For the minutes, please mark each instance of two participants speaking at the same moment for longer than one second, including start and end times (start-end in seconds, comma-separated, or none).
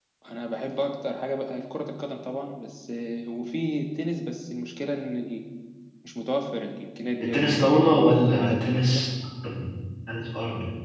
7.2-9.1